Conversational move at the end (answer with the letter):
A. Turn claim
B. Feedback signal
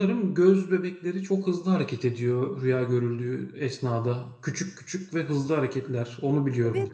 A